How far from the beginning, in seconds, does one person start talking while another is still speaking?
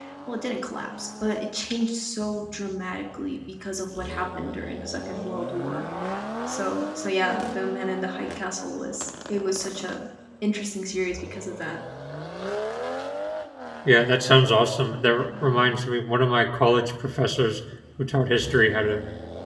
none

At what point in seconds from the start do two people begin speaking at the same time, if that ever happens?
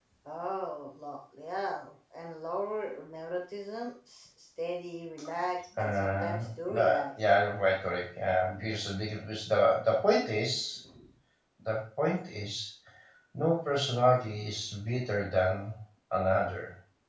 5.8 s

